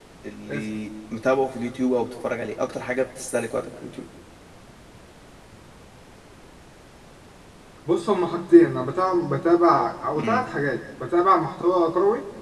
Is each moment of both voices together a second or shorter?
Yes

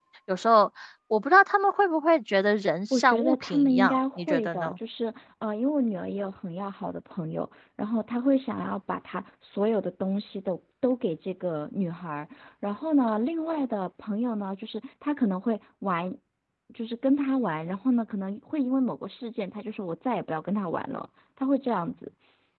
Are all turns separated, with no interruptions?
No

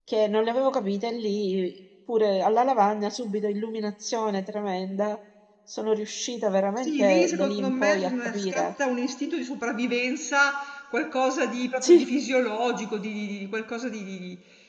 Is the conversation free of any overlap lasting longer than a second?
No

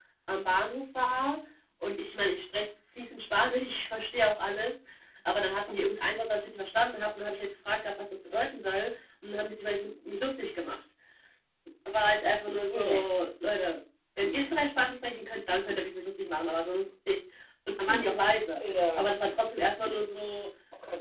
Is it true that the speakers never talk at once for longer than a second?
Yes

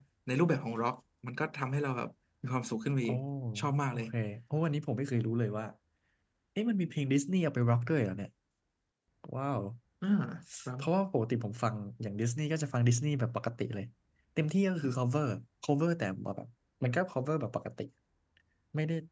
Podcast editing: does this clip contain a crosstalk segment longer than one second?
No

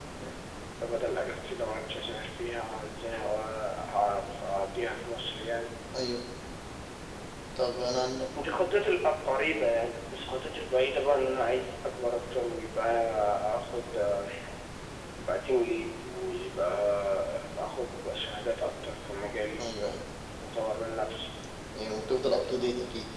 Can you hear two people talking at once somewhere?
No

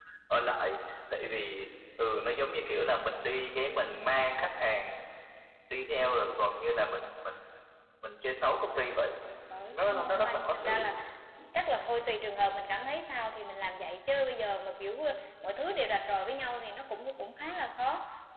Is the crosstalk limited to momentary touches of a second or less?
No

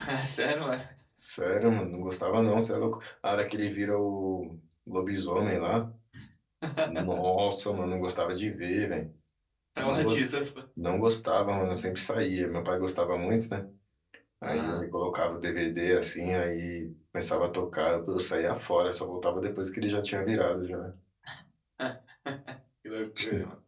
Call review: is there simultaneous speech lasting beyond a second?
No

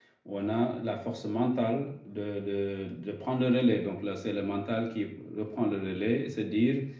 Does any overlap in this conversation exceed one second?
No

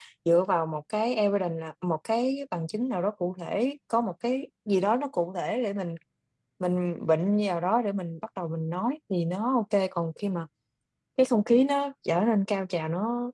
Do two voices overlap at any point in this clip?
No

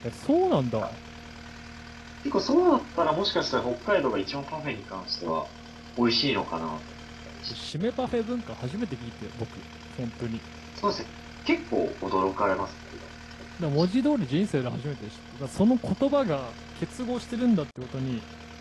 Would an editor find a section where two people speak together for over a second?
No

